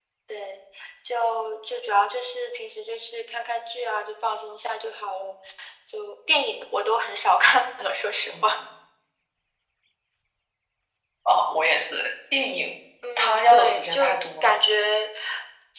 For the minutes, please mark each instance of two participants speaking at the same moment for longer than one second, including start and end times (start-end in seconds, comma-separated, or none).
13.2-14.6